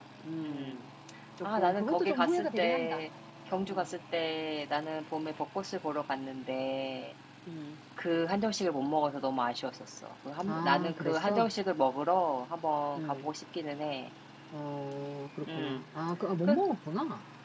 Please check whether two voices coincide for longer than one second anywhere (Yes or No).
Yes